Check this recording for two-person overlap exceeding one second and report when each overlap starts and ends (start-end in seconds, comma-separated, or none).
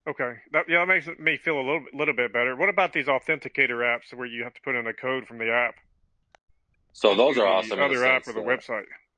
7.1-8.6